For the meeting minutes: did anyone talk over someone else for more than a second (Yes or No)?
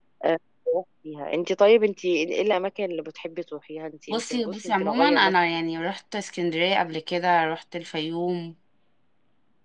Yes